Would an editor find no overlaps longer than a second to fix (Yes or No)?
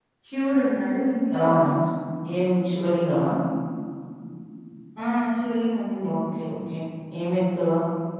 Yes